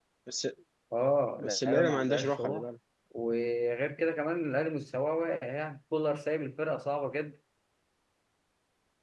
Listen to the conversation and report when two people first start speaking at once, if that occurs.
1.4 s

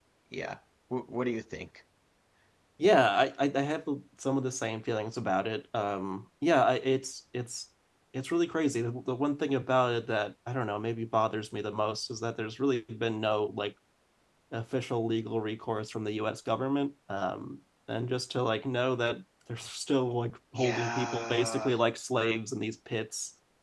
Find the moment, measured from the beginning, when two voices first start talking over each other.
20.5 s

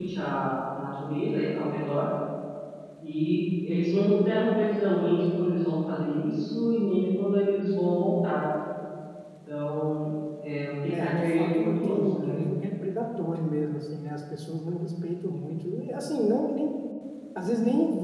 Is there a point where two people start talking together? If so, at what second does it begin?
10.9 s

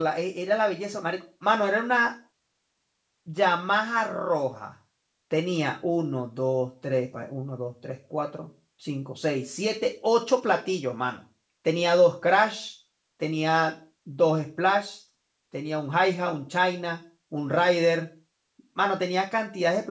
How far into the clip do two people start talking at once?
none

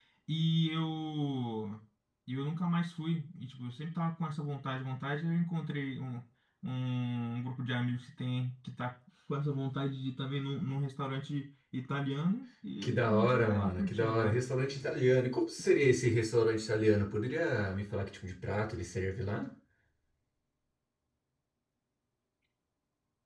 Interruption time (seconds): 12.8 s

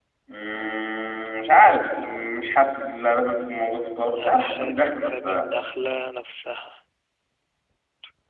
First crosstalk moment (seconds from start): 4.2 s

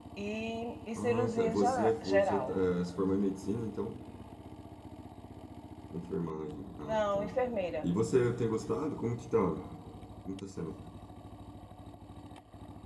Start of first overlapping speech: 1.0 s

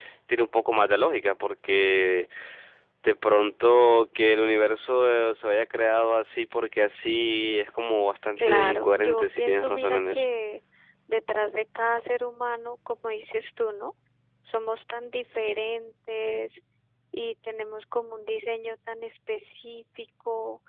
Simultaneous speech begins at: 8.4 s

